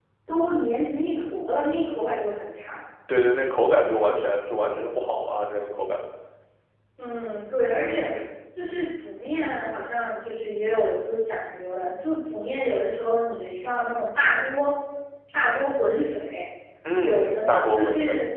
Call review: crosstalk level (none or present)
present